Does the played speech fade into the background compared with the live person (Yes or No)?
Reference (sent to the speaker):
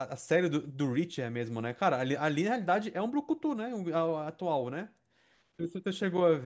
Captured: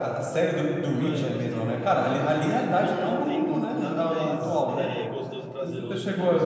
No